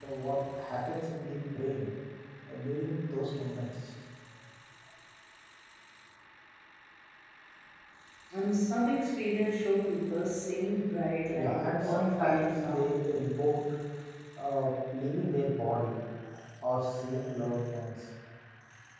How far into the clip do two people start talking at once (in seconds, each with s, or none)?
11.3 s